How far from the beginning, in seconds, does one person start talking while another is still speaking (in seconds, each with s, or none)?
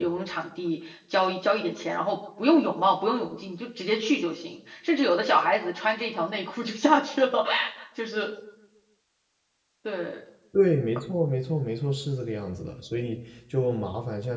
none